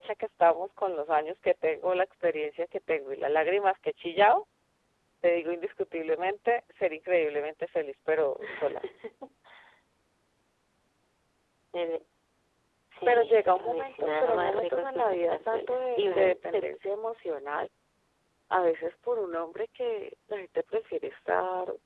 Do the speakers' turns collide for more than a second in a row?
Yes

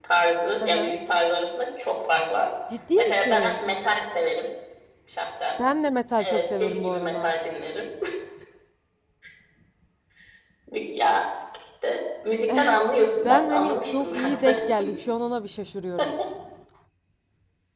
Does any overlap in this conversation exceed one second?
Yes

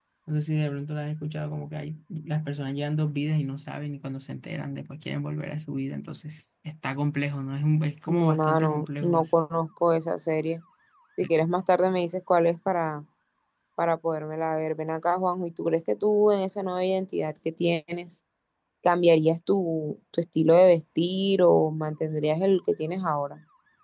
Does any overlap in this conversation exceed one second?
Yes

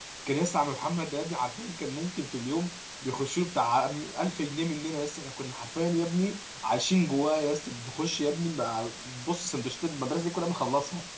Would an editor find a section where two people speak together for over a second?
No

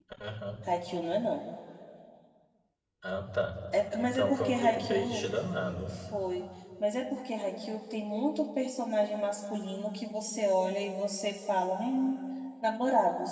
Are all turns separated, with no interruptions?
No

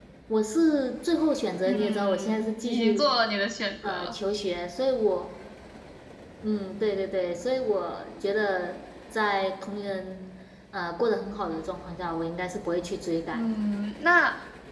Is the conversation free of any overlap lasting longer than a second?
No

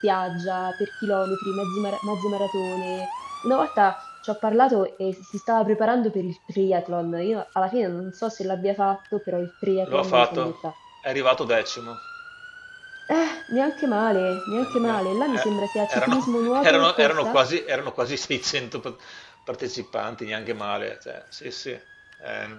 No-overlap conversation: No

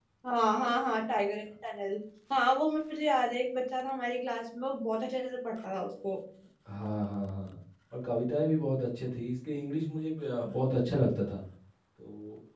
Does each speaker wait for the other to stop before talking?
Yes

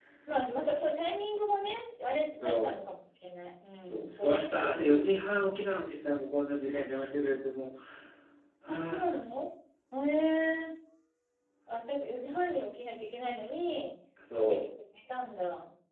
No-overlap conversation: No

